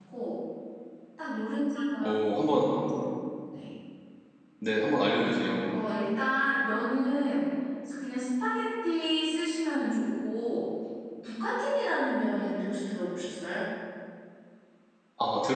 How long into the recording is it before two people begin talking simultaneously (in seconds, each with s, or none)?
none